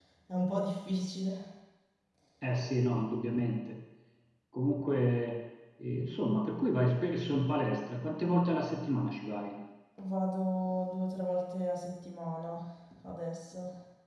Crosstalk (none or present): none